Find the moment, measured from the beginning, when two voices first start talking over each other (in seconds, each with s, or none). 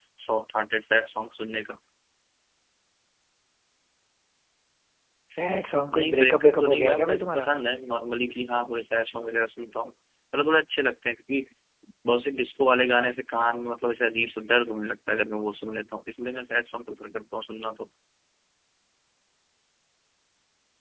5.9 s